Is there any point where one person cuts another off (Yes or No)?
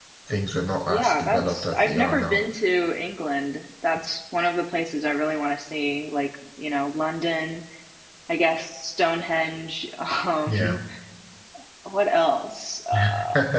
Yes